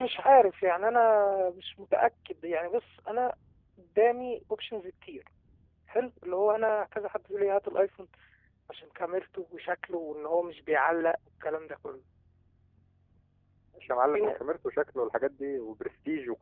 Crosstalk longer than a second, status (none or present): none